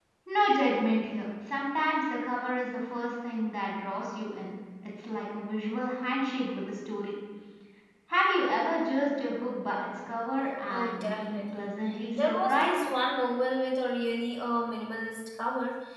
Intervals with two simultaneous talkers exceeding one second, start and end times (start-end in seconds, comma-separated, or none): 10.7-12.9